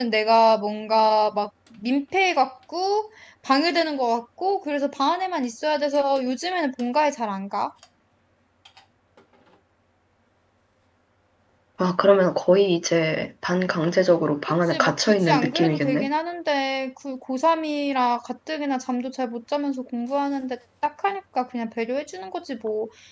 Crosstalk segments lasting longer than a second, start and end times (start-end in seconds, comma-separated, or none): 14.7-16.1